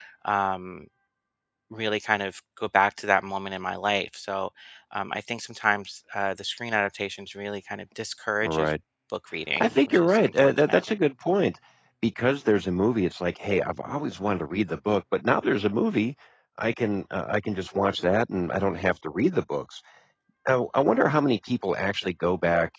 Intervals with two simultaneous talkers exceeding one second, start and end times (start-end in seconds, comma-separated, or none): 9.6-10.8